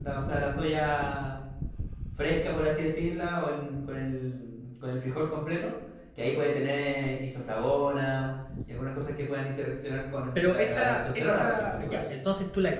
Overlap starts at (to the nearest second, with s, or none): 10 s